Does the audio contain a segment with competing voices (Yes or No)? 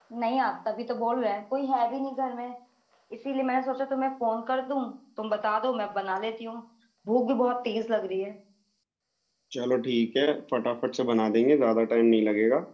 No